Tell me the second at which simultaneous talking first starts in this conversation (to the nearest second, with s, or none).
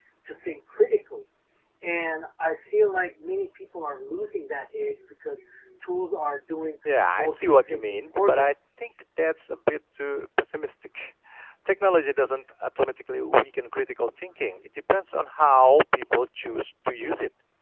7 s